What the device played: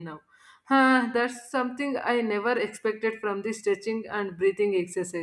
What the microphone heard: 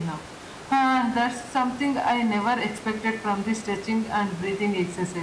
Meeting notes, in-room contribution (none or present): none